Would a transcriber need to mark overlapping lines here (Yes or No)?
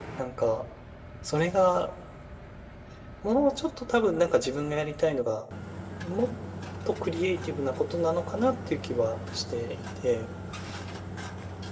No